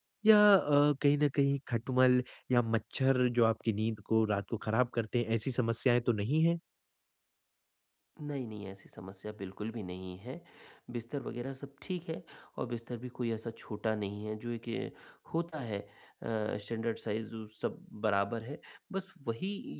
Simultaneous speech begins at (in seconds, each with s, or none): none